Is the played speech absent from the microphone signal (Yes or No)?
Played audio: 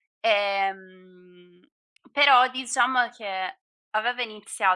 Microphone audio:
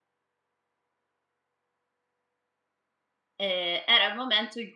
Yes